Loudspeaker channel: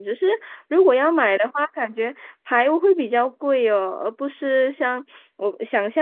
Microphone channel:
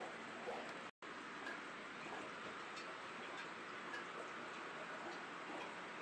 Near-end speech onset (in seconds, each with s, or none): none